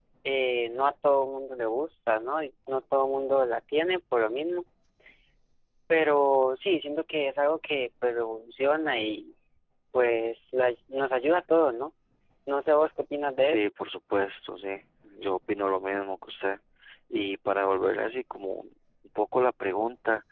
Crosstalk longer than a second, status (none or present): none